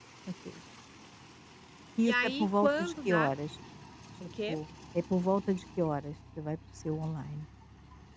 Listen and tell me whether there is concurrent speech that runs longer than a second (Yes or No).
Yes